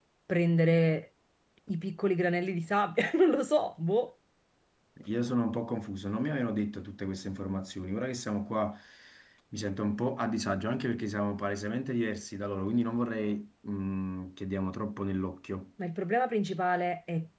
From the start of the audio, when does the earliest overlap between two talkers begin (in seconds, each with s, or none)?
none